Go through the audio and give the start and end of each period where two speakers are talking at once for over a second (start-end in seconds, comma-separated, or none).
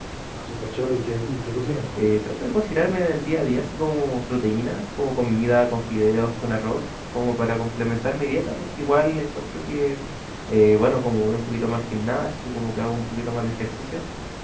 none